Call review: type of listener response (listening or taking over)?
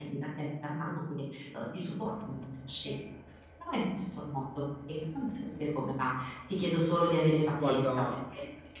listening